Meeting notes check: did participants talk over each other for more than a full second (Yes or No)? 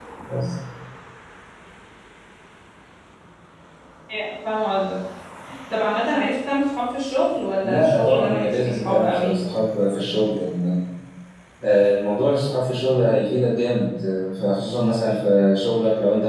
Yes